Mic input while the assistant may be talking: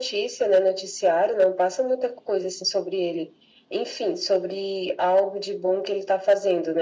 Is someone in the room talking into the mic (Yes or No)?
No